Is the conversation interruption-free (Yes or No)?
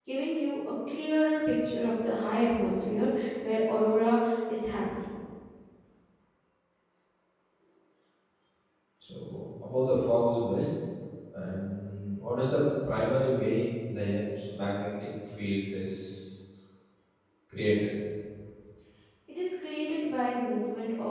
Yes